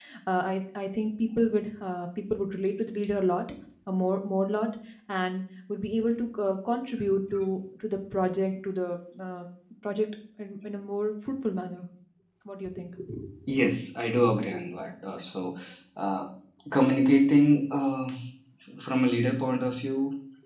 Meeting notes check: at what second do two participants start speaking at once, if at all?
none

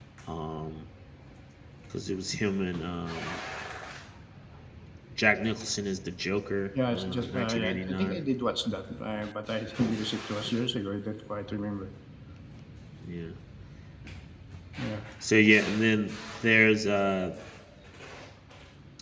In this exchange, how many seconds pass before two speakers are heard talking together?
6.9 s

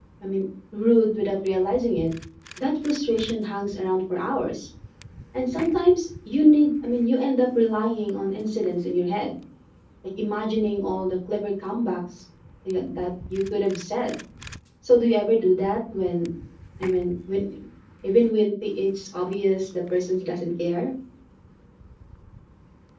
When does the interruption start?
none

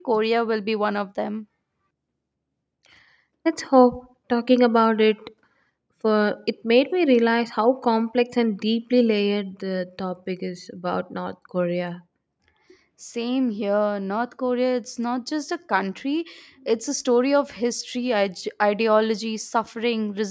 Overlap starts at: none

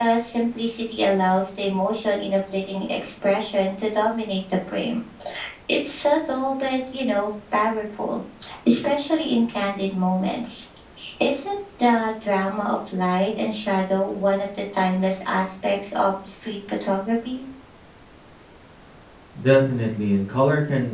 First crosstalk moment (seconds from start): none

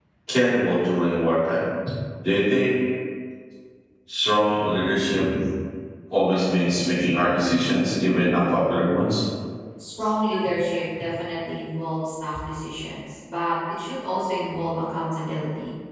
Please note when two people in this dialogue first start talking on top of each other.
none

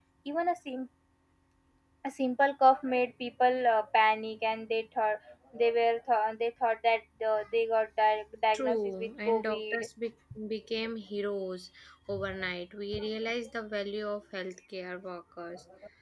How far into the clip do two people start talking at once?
8.5 s

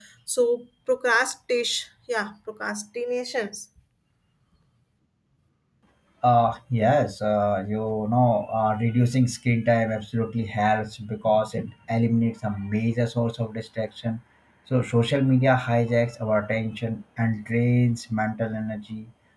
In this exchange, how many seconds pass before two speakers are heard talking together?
none

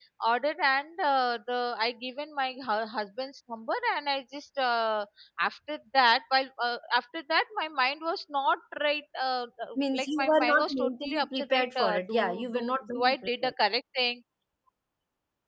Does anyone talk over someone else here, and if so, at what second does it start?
9.8 s

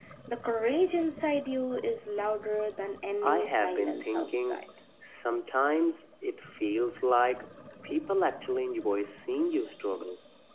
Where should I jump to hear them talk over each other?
3.2 s

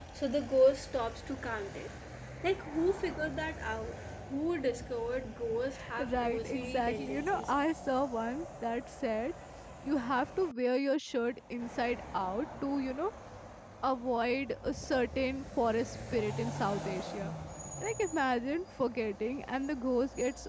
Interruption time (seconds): 5.7 s

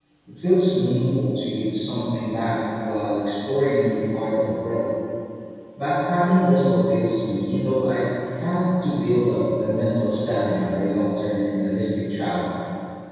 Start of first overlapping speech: none

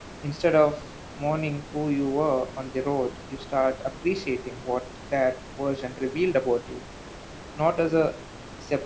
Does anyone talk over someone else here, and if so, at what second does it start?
none

